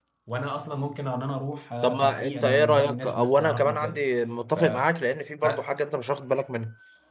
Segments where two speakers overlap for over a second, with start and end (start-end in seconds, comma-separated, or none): 1.8-4.1